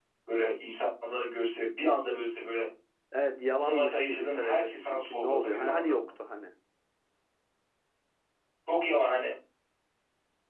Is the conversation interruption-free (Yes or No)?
No